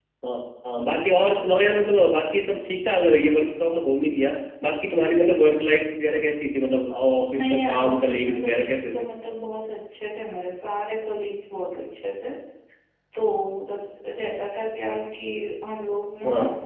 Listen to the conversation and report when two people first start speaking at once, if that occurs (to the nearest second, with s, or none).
7 s